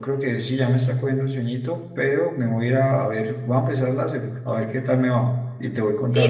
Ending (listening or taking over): taking over